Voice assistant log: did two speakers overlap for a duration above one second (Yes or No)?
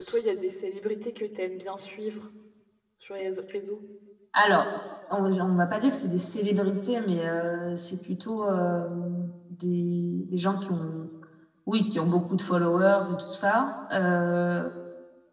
No